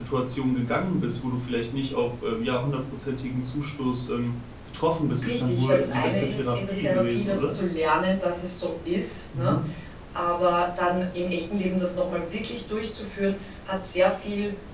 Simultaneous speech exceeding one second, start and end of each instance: 5.2-7.5

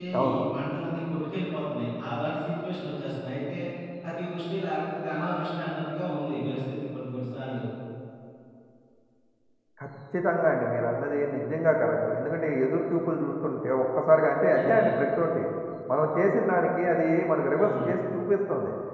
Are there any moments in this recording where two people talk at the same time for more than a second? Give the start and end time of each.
none

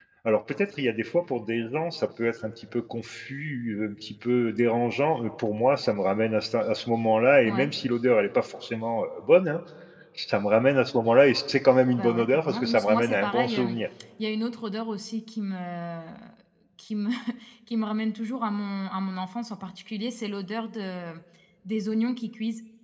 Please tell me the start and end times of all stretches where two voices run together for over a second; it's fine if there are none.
12.0-13.8

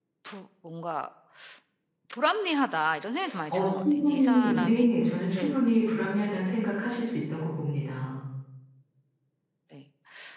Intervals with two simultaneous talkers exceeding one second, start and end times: 3.5-4.9

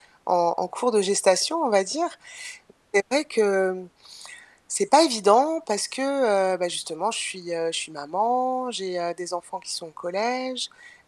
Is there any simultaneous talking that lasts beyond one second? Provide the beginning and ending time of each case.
none

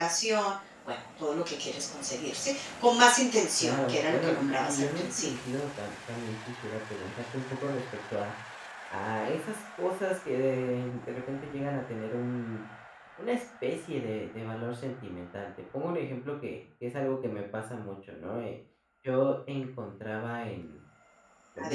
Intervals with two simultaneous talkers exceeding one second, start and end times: 3.6-5.3

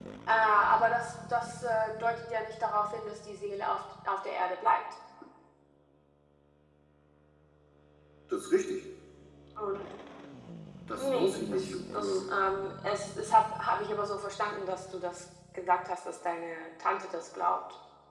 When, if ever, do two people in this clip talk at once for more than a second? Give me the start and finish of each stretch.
11.0-12.3

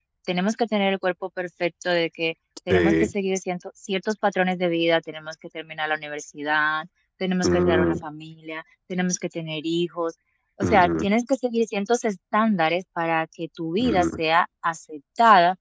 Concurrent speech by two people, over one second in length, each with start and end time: none

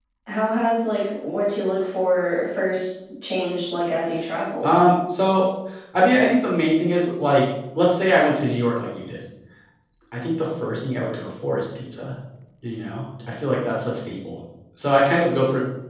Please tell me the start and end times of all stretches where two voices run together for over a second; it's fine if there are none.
none

